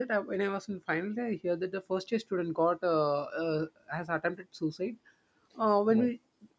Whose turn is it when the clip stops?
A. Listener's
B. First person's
B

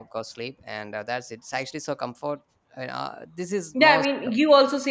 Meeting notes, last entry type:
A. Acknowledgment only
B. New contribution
B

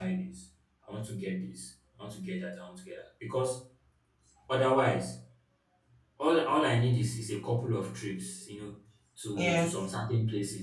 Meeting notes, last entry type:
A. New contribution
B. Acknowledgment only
B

